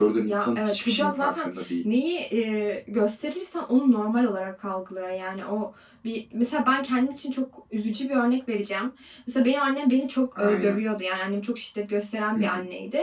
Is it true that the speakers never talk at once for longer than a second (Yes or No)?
No